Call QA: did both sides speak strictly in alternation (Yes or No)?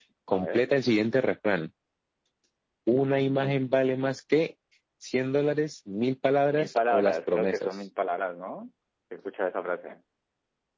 No